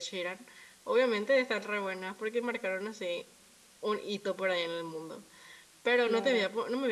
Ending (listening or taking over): listening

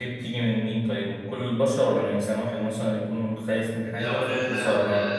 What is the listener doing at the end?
taking over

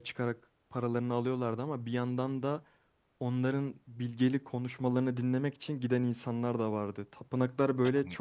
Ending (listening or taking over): listening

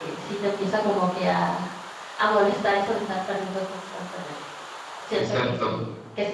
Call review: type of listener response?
listening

